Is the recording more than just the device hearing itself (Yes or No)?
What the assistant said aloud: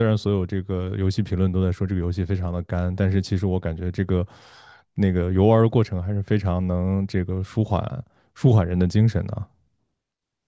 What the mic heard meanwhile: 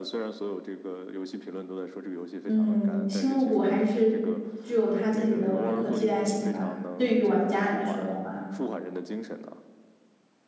Yes